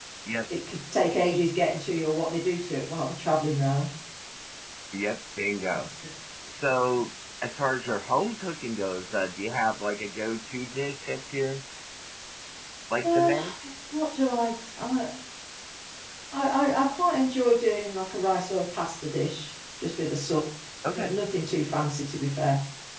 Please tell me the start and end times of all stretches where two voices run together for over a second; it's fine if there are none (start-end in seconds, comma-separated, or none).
none